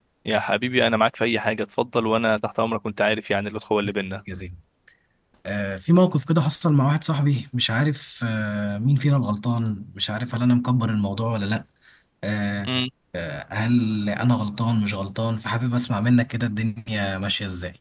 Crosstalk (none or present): none